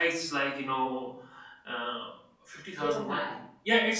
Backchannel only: Yes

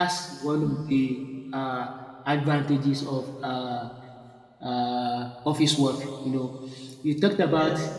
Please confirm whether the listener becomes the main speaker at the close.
No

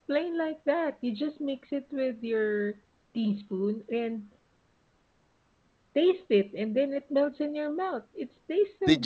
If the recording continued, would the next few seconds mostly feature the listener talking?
Yes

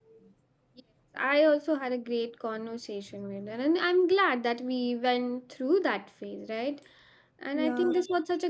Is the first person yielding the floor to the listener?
No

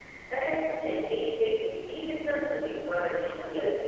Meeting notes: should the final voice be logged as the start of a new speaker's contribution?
No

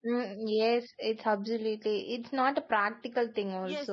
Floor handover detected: Yes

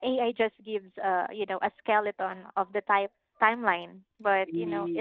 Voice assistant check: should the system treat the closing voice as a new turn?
No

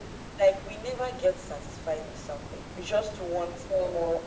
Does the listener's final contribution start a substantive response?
No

